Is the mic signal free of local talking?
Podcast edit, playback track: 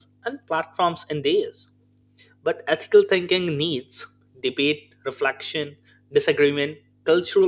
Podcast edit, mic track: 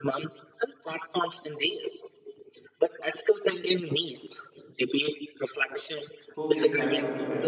No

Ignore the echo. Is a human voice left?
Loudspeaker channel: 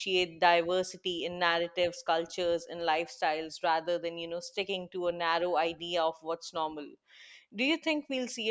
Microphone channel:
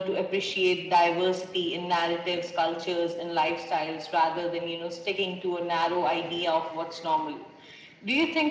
No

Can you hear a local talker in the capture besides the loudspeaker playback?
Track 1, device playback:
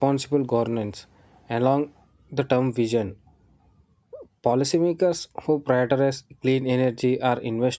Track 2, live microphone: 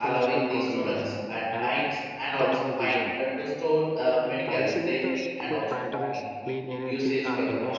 Yes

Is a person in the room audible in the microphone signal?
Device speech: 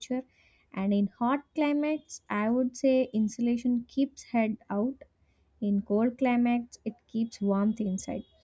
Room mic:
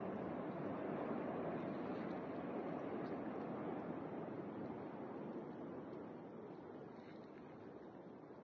No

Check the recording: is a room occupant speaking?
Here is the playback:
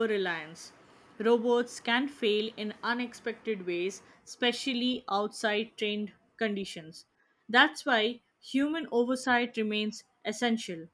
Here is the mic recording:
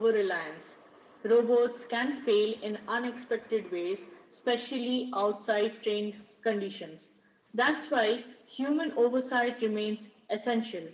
No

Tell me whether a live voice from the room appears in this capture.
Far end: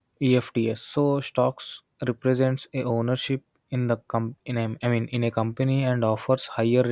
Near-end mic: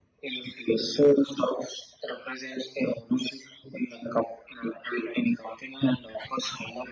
No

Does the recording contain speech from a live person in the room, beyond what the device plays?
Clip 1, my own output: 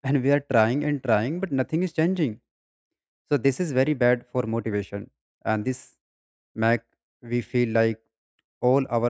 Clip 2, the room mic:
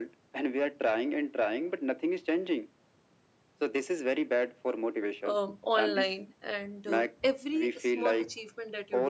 Yes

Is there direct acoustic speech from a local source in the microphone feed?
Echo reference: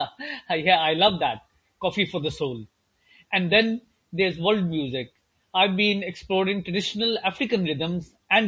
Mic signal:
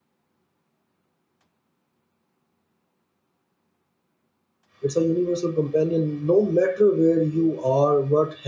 Yes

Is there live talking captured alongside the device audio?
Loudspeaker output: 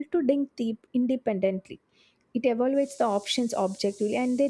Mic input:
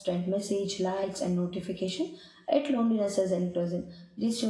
Yes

